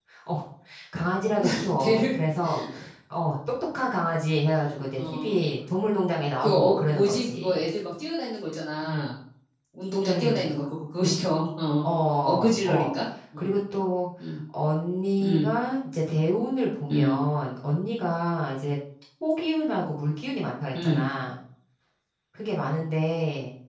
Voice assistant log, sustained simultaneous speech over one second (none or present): present